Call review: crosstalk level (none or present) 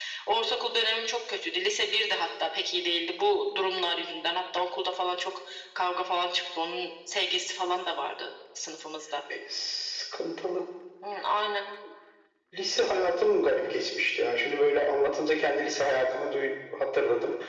none